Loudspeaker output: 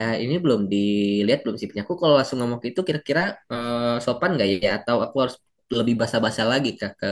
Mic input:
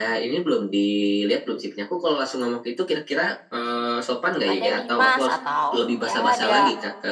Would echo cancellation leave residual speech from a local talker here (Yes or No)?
Yes